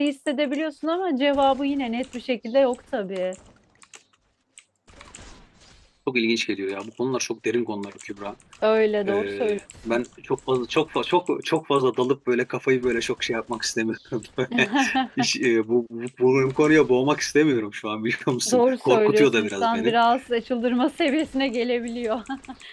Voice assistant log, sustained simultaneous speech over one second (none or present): present